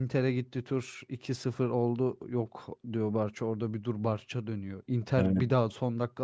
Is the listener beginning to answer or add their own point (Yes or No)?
No